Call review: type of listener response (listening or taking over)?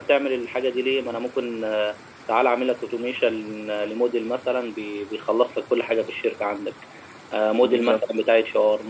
listening